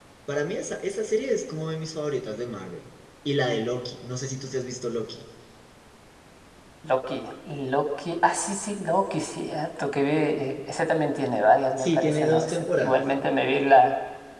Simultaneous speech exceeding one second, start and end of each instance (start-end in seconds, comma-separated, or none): 11.8-13.0